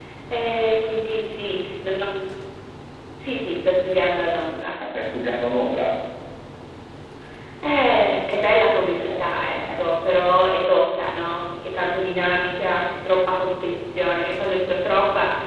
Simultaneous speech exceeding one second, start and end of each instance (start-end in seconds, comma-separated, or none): 8.6-9.8